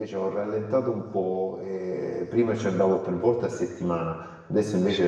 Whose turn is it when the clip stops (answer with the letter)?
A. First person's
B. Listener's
A